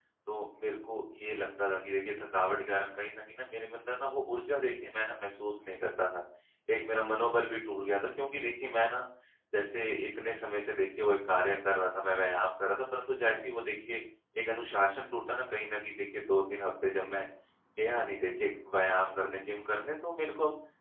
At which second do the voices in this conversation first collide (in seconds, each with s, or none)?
none